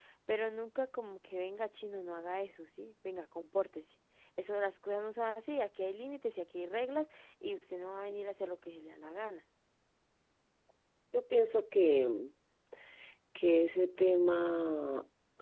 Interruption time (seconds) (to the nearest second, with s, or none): none